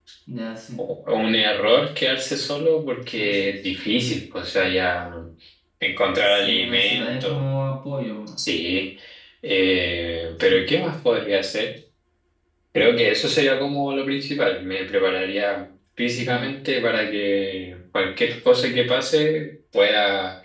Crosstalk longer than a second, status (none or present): present